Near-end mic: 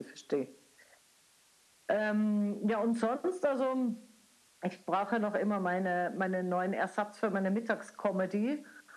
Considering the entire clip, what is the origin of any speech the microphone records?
echo only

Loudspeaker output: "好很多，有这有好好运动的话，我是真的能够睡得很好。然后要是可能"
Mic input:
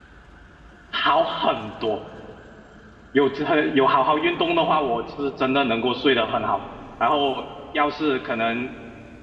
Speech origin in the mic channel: echo only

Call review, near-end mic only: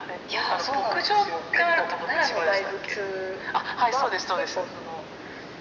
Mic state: echo only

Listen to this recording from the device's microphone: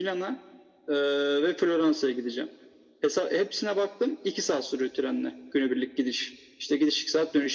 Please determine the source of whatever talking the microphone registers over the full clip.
echo only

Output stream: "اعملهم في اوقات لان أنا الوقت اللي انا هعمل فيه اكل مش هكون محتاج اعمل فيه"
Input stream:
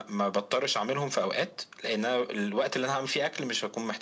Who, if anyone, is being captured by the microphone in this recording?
echo only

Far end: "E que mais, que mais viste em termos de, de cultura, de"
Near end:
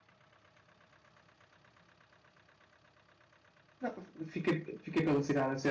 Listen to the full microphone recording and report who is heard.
user only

